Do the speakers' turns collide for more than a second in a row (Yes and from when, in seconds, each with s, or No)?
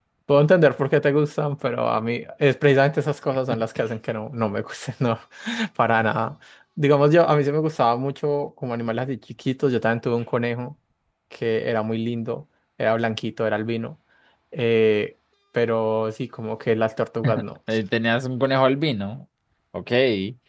No